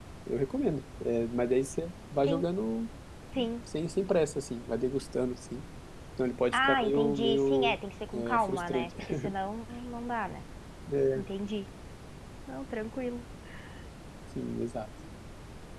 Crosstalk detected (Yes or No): Yes